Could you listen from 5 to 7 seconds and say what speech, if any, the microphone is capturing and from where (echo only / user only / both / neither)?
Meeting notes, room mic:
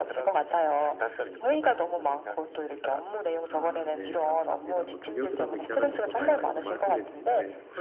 both